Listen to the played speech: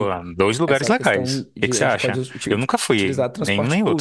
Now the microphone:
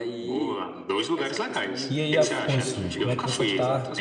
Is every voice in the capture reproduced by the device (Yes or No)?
No